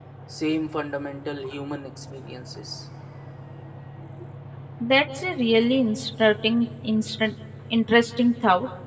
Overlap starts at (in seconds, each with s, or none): none